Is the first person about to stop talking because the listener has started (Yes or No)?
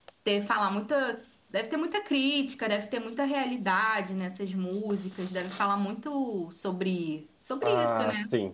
Yes